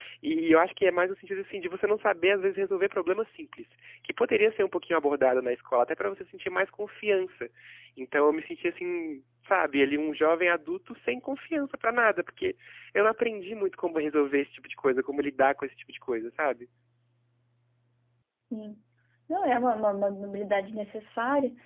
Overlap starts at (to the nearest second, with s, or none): none